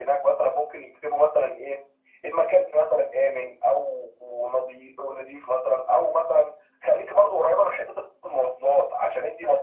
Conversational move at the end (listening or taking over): listening